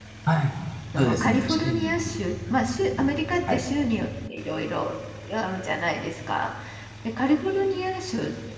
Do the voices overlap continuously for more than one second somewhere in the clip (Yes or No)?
Yes